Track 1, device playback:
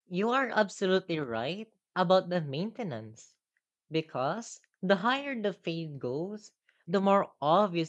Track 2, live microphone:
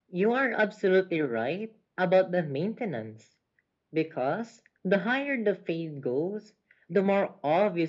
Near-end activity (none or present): none